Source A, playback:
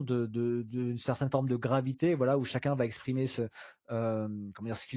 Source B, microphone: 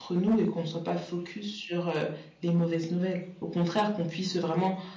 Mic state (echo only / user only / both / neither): user only